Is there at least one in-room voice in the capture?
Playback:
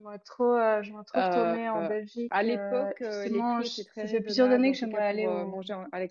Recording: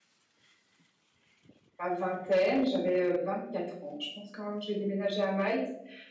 Yes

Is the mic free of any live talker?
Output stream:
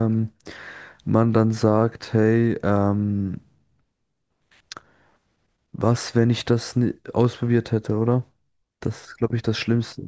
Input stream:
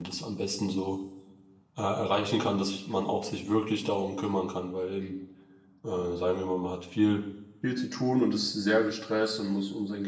No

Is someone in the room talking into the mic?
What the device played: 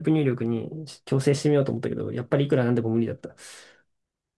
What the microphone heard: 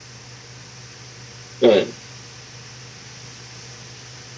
Yes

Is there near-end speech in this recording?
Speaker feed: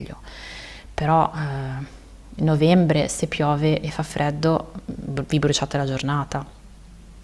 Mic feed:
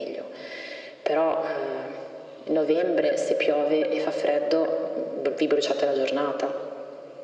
No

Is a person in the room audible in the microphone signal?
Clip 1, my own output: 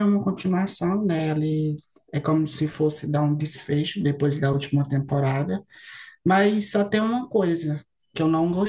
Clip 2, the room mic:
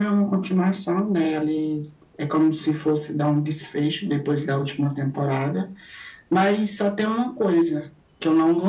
No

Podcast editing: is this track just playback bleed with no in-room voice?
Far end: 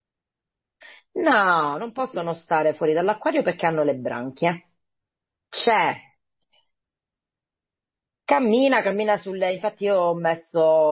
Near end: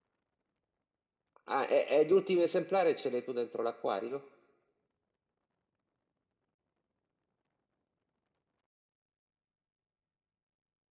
No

